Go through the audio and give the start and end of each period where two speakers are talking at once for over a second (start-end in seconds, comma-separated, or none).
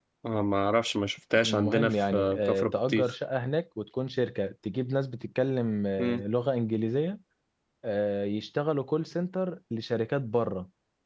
1.4-3.1